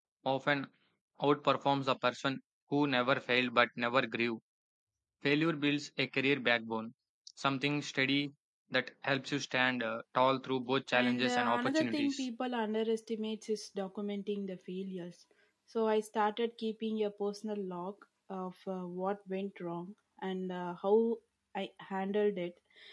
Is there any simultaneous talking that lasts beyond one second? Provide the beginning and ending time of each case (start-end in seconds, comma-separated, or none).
10.9-12.2